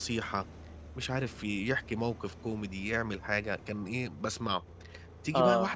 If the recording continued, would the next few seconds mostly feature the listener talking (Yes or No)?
No